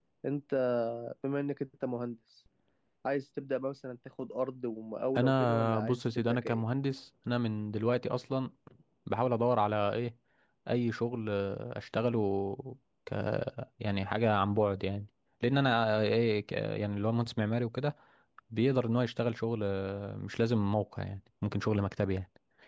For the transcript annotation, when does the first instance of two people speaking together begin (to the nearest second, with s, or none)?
5 s